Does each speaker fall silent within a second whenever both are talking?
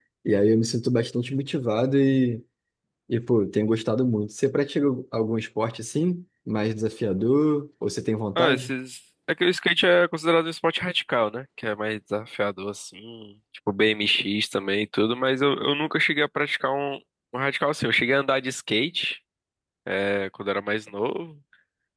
Yes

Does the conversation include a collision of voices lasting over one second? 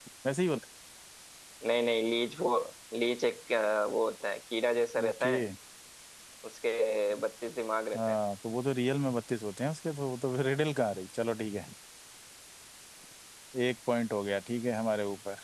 No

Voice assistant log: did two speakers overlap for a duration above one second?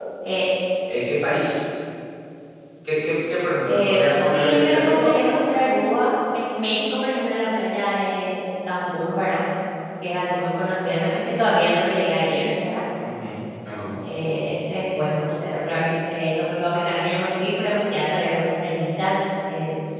Yes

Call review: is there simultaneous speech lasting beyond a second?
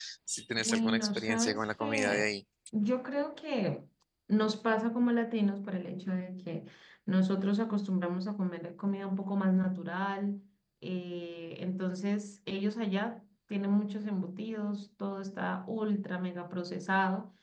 Yes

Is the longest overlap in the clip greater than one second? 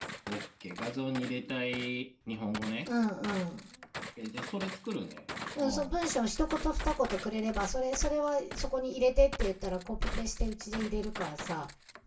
No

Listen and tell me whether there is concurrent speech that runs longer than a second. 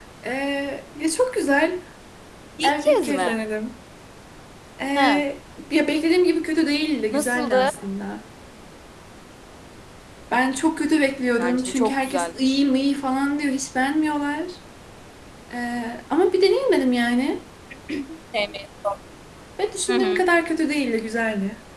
Yes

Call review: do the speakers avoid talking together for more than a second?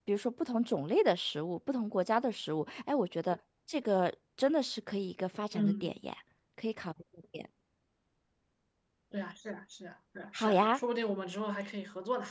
Yes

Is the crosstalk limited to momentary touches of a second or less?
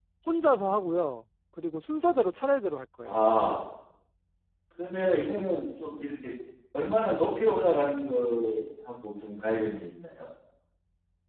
Yes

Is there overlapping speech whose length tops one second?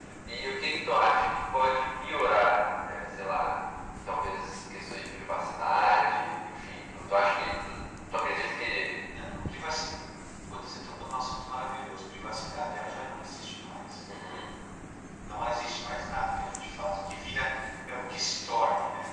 No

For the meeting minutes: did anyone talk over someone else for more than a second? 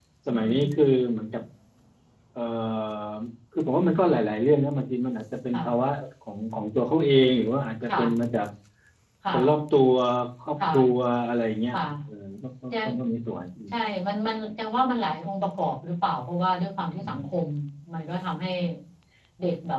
No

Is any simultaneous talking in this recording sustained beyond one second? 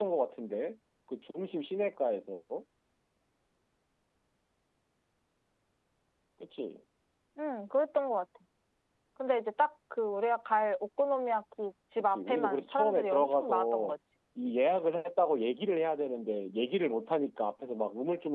Yes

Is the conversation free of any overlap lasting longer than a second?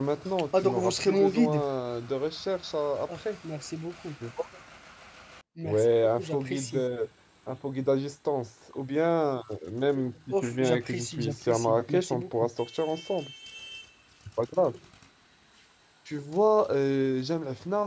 No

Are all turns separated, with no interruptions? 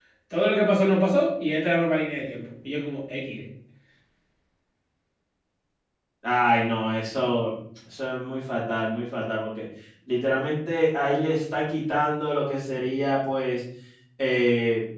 Yes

